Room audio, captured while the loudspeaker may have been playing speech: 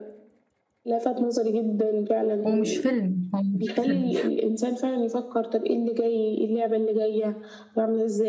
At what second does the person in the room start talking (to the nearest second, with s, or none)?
2 s